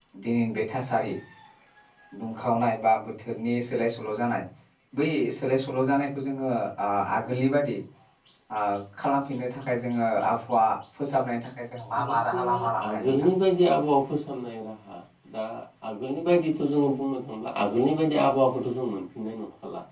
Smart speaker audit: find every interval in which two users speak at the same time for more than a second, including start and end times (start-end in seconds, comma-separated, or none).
12.1-13.3